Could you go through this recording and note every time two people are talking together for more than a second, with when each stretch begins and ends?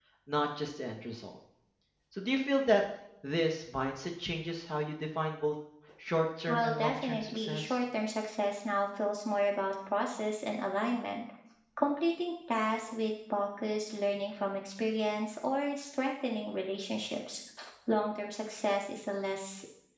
6.5-7.8

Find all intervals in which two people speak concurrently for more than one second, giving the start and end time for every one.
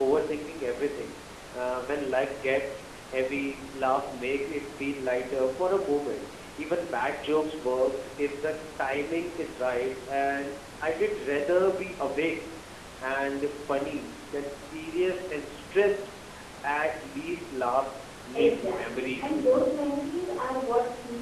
18.3-19.8

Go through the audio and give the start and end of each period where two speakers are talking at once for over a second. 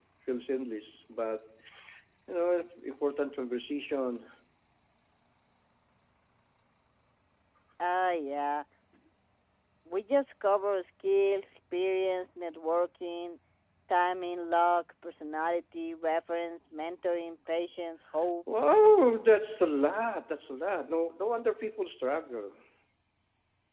none

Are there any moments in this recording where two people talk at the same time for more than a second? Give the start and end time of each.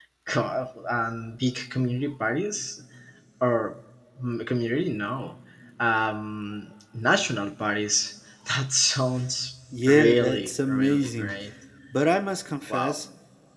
9.9-11.3

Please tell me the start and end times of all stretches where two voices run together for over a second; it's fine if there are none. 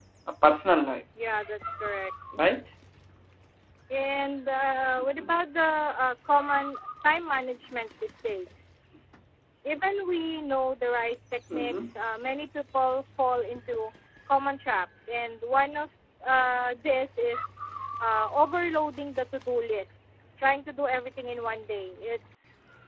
none

